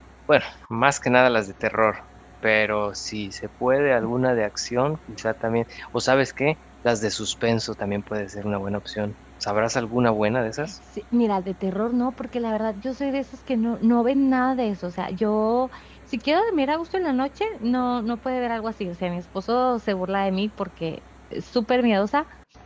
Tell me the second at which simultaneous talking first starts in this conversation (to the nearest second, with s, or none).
none